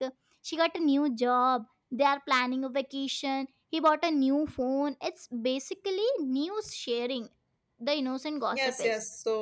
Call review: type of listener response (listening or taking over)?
taking over